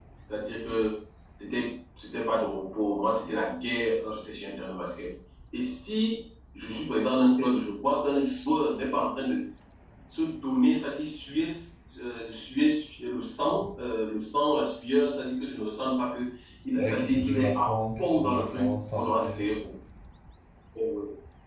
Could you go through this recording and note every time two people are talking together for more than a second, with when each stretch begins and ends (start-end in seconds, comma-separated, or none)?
16.8-19.5